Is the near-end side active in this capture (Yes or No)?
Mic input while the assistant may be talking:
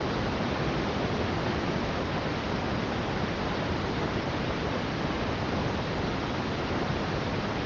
No